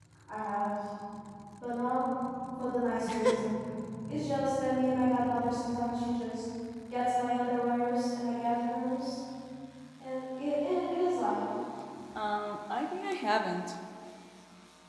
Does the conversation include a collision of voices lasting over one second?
No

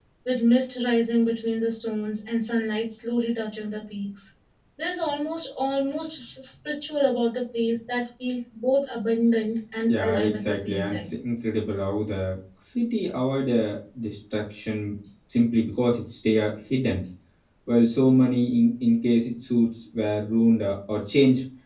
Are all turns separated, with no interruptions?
No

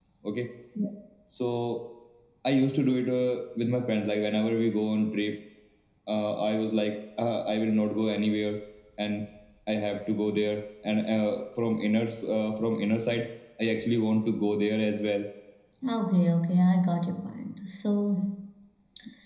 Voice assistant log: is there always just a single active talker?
Yes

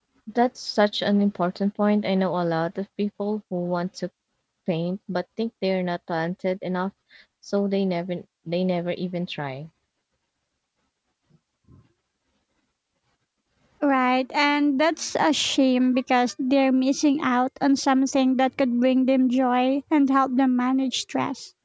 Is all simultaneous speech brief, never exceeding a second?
Yes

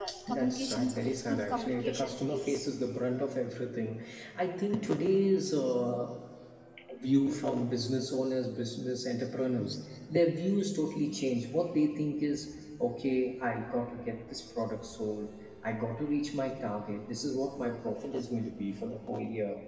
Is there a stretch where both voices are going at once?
Yes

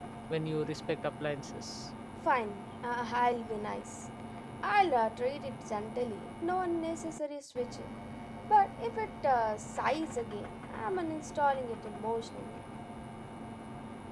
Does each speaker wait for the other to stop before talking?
Yes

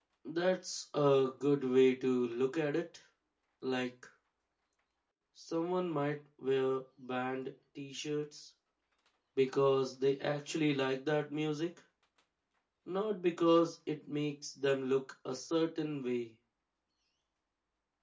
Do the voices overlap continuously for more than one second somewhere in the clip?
No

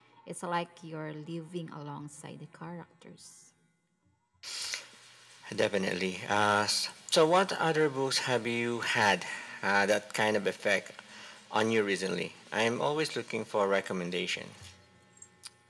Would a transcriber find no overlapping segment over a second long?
Yes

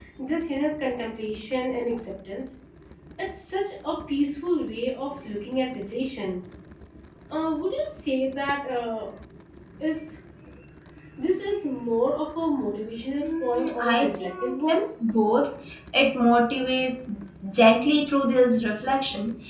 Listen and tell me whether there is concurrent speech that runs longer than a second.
Yes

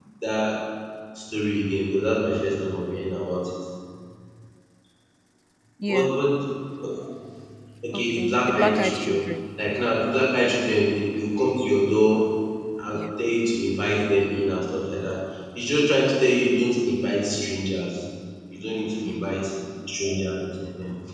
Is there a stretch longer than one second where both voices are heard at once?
Yes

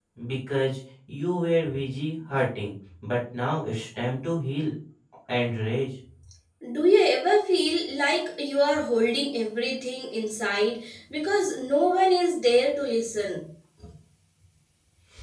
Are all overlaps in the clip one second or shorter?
Yes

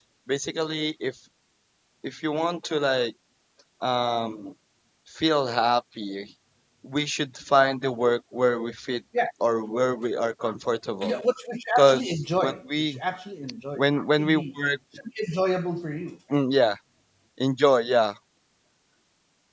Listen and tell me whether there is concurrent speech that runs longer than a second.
Yes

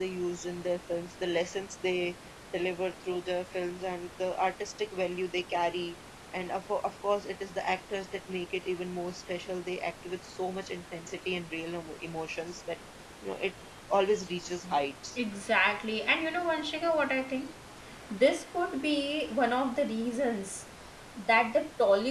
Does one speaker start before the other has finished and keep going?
No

